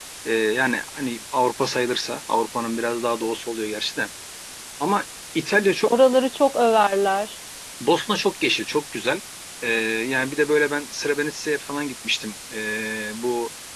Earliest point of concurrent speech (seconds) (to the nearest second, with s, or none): none